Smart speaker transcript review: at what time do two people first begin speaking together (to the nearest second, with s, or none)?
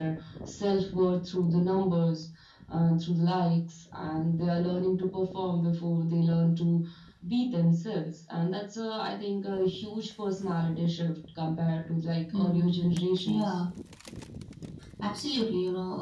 12 s